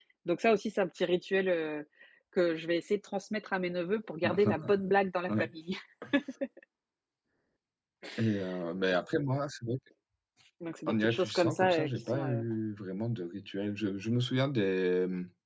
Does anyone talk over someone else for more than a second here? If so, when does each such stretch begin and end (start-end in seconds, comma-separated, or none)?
10.9-12.4